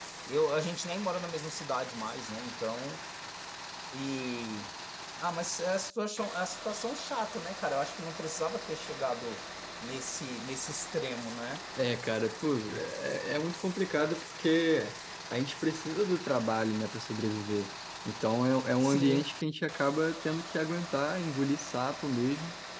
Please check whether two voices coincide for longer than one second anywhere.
No

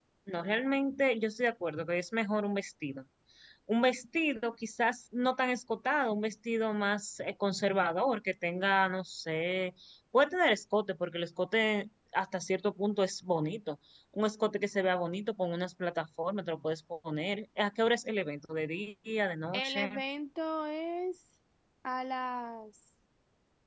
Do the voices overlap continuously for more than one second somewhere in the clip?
No

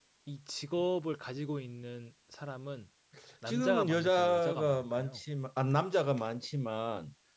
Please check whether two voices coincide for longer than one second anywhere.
Yes, from 3.5 s

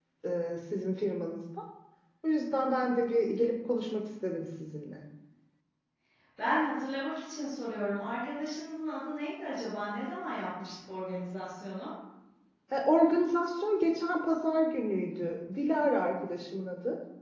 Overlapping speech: No

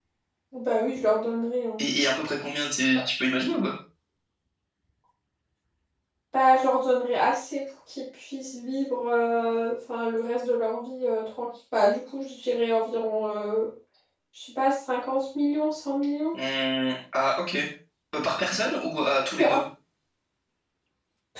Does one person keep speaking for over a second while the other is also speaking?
No

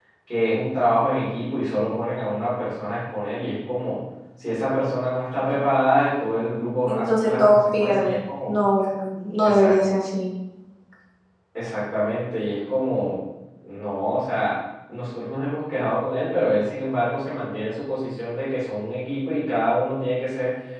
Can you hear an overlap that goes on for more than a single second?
Yes, from 6.9 s

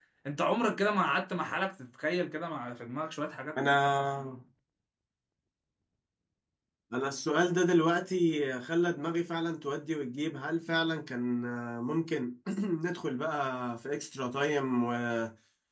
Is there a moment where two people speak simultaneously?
No

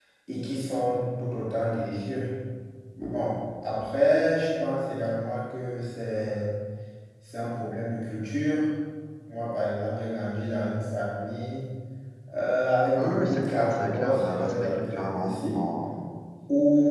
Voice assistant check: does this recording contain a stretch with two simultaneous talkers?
Yes, from 12.9 s

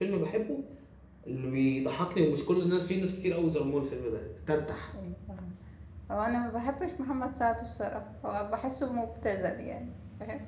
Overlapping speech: No

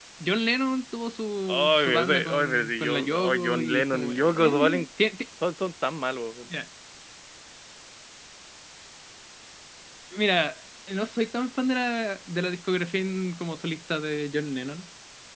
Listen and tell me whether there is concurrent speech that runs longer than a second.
Yes, from 1.5 s

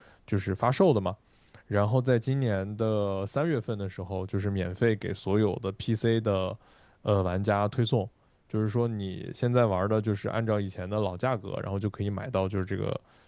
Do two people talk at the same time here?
No

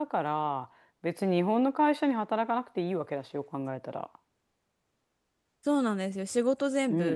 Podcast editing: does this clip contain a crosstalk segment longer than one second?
No

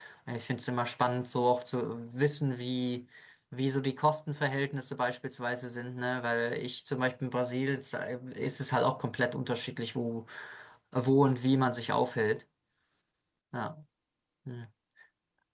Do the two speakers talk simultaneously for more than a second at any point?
No

